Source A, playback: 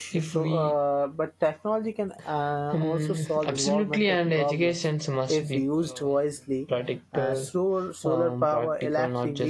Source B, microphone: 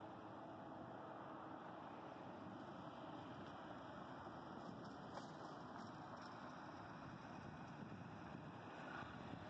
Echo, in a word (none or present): none